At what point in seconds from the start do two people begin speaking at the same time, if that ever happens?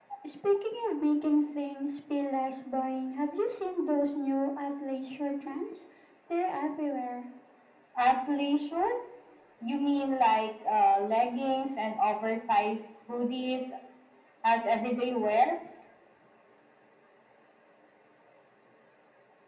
none

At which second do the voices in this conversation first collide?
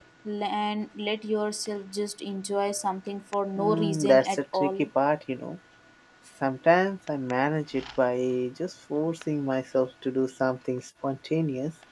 3.6 s

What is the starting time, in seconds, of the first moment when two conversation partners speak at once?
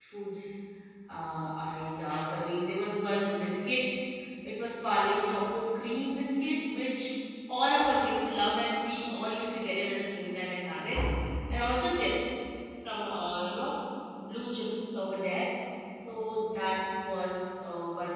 none

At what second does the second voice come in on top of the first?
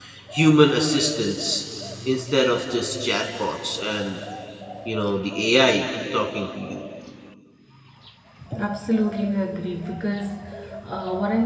none

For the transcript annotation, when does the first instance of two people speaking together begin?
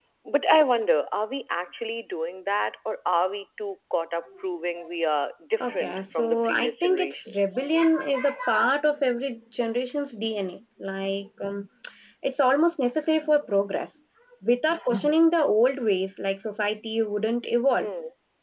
5.6 s

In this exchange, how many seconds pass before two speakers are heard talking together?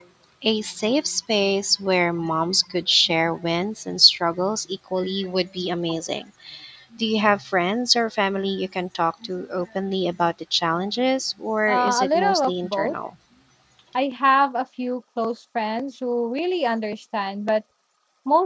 11.7 s

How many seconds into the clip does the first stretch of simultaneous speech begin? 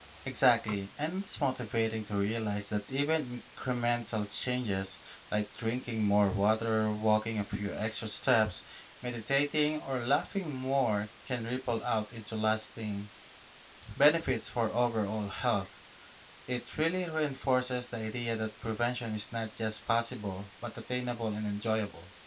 none

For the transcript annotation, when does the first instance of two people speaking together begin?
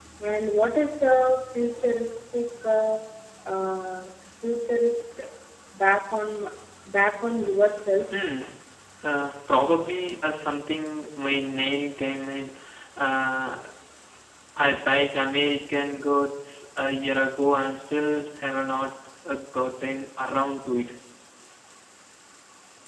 none

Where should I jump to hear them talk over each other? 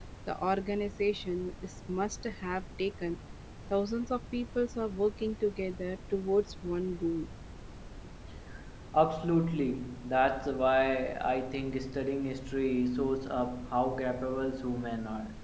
none

